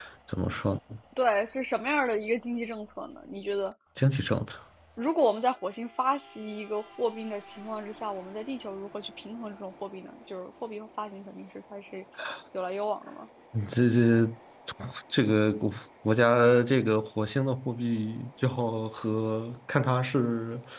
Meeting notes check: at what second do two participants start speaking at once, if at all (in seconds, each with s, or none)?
none